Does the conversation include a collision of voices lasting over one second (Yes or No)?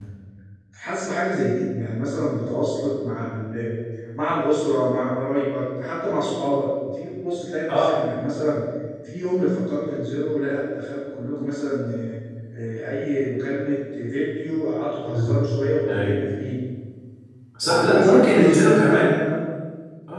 Yes